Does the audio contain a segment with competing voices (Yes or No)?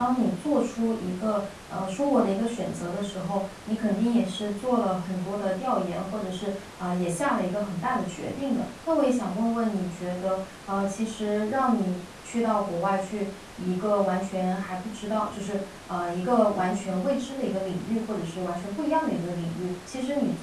No